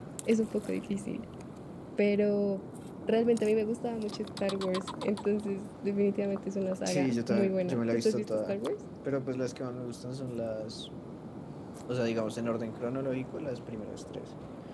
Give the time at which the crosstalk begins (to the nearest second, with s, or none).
7 s